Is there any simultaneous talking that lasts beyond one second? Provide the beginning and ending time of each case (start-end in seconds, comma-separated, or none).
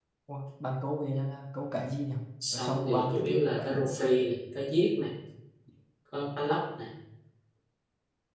2.5-3.8